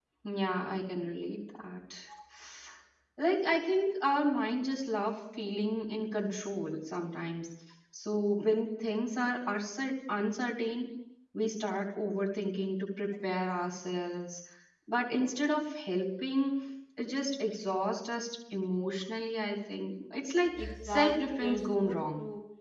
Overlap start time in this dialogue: 21 s

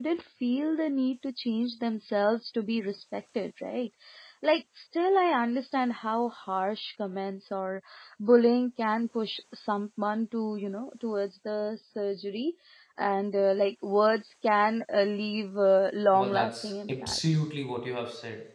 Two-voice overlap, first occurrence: 16 s

